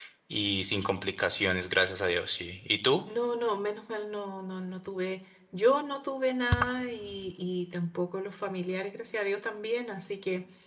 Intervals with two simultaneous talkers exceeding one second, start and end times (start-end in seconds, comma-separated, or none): none